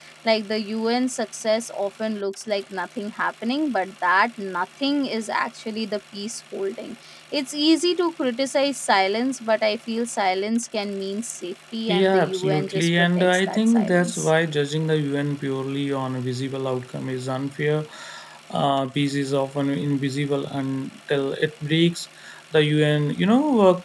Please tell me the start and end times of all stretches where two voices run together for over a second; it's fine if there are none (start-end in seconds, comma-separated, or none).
11.9-14.3